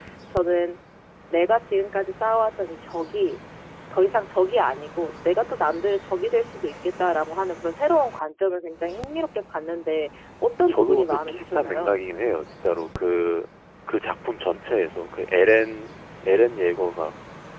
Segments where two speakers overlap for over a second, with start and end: 10.7-12.0

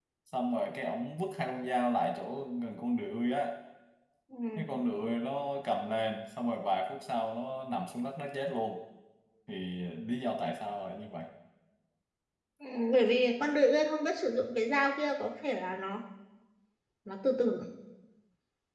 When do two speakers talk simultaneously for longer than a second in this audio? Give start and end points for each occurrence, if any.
none

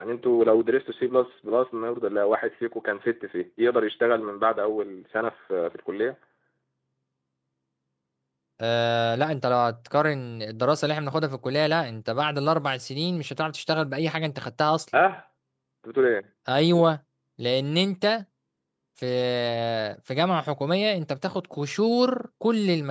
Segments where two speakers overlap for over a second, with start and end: none

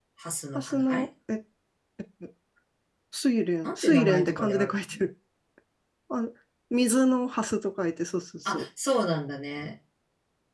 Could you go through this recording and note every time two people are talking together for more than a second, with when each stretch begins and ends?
3.6-5.0

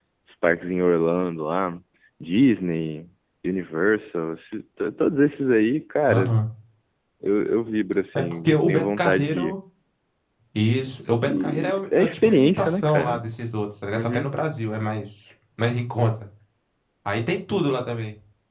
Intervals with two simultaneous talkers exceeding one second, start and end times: 8.2-9.6, 11.3-13.2

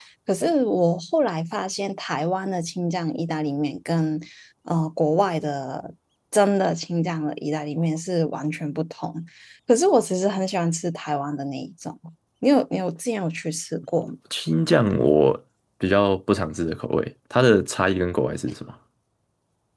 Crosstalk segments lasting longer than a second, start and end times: none

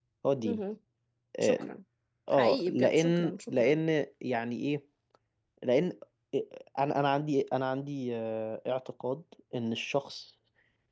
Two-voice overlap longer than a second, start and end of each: 2.3-3.8

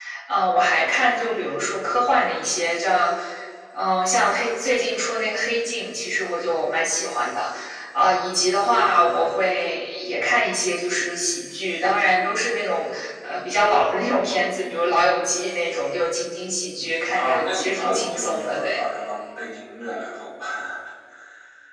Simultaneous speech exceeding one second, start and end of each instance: 17.1-18.8

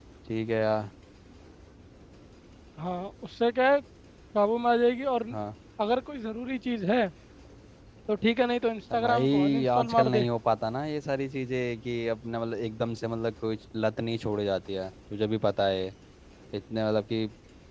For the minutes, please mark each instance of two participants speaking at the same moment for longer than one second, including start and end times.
9.0-10.3

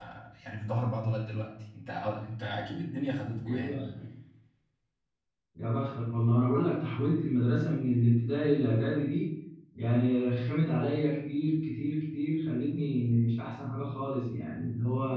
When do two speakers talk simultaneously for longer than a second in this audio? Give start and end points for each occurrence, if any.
none

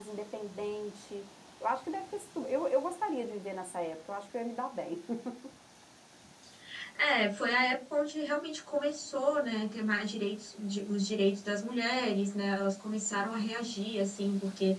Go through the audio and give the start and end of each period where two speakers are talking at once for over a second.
none

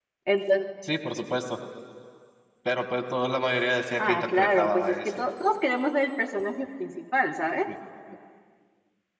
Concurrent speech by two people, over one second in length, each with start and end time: 4.0-5.3

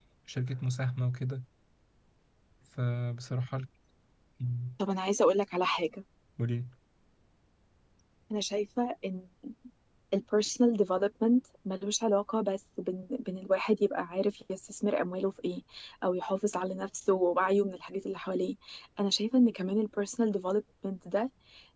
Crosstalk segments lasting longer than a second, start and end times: none

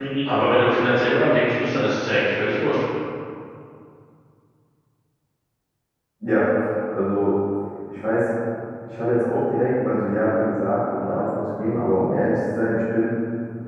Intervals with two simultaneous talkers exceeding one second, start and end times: none

